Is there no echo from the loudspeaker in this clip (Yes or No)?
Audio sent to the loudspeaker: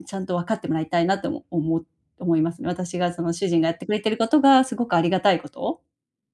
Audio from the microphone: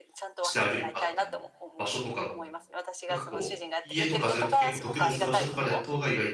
No